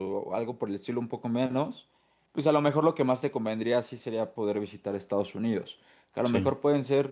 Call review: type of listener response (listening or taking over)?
listening